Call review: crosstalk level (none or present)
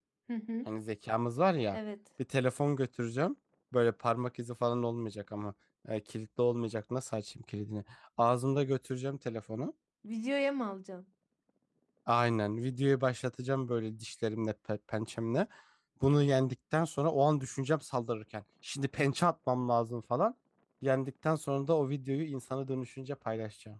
none